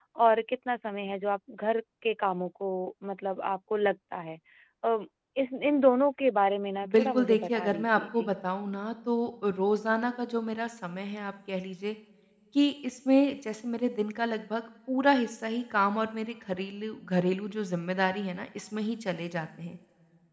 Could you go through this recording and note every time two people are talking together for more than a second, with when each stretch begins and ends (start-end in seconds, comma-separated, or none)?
6.9-8.3